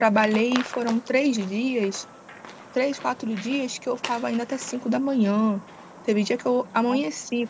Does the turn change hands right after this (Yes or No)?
No